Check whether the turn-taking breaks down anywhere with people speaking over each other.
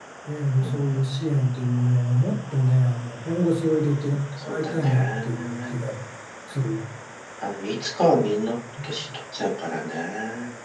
Yes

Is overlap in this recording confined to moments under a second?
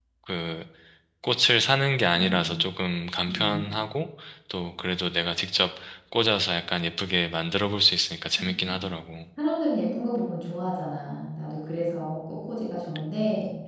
Yes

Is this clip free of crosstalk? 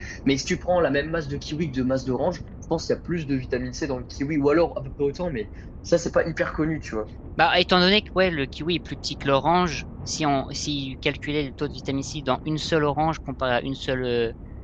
Yes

